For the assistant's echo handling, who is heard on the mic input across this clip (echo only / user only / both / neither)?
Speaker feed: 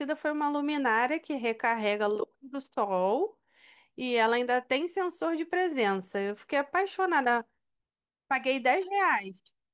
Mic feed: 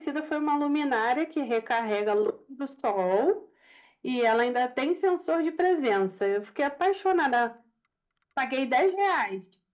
echo only